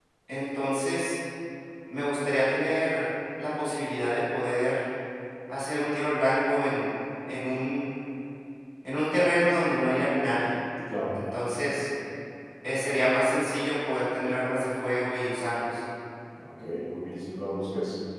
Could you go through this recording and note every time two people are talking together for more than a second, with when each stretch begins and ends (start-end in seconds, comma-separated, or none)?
none